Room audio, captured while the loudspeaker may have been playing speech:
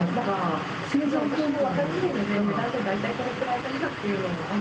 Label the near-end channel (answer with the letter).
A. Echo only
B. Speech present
B